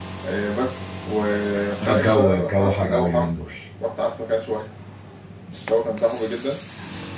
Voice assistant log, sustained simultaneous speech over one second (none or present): present